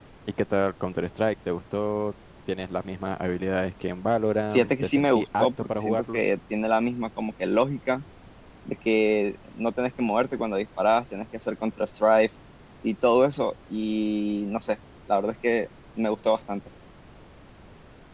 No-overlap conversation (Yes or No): No